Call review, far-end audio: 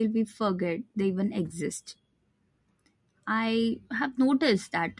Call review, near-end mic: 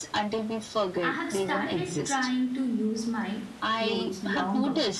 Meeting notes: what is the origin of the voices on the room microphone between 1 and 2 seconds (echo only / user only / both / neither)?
both